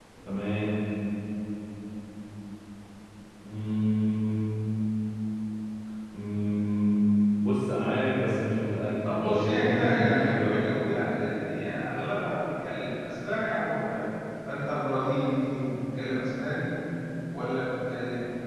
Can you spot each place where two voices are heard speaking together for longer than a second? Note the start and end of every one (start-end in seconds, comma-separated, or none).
9.0-10.6